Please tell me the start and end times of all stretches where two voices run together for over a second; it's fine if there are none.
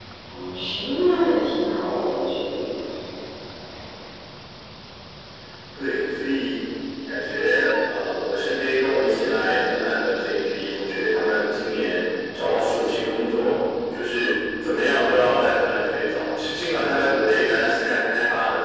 none

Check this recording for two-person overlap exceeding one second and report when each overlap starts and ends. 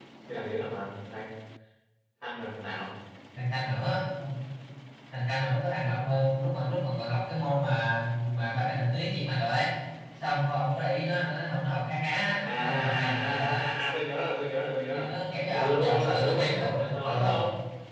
12.2-13.6, 15.5-17.4

